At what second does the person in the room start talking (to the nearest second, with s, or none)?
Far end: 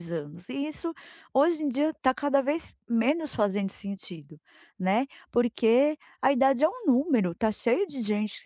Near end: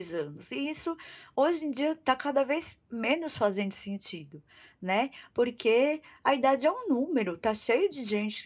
none